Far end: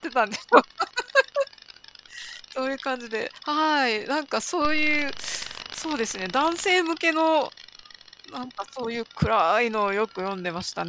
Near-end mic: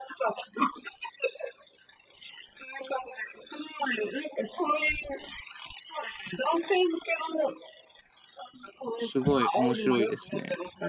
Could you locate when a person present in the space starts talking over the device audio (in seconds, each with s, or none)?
9.0 s